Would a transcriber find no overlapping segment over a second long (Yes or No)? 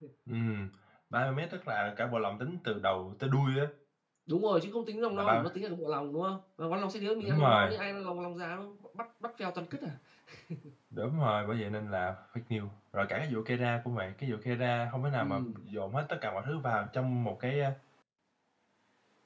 Yes